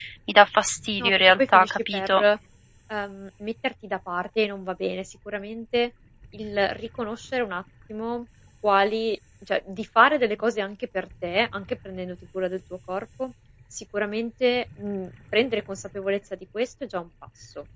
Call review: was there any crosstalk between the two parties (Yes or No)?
Yes